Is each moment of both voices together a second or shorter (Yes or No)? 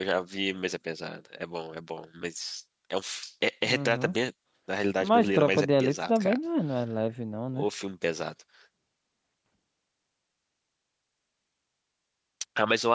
No